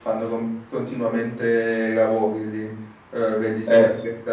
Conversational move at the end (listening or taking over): listening